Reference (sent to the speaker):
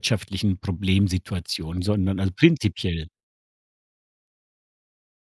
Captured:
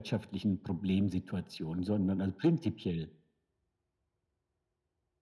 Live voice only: none

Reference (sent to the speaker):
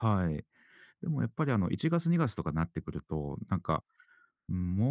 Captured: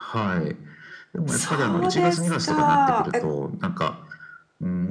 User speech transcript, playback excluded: そうですか。え、

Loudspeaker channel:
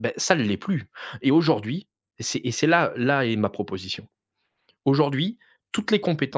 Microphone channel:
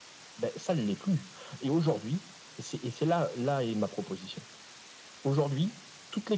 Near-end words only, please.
none

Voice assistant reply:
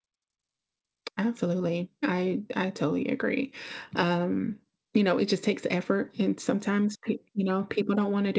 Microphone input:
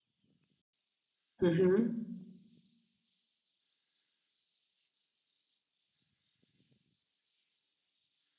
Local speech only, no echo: Mhm.

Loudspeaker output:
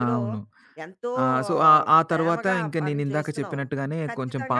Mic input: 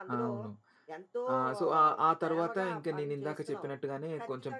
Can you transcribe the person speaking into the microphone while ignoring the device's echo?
none

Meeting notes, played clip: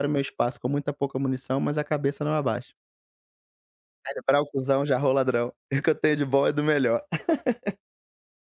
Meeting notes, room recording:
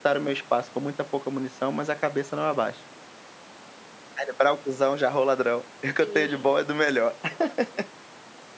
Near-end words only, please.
Sim,

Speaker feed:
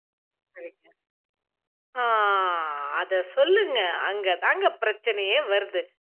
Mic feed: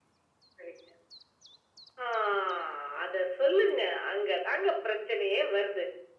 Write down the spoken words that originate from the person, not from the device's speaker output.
none

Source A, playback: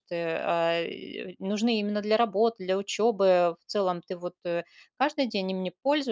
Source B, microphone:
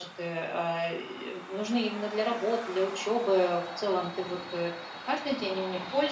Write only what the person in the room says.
none

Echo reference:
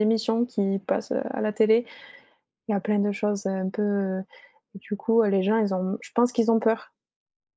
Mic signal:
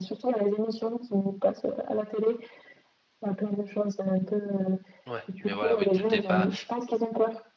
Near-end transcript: Ouais, mais voilà, oui, tu pas

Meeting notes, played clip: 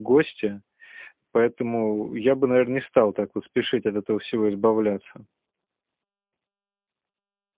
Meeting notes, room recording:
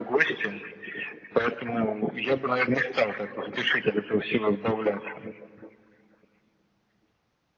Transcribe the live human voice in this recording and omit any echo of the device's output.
none

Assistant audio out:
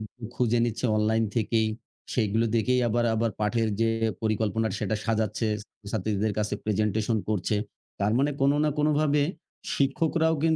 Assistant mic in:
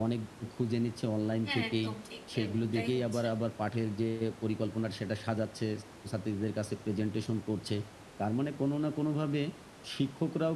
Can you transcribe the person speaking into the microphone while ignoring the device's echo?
হ্যাঁ, একদম ঠিক। এরকমটাই হচ্ছে।

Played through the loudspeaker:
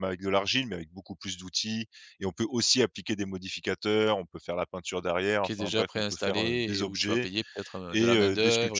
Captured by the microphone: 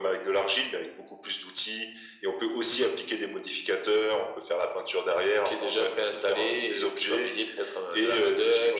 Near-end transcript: none

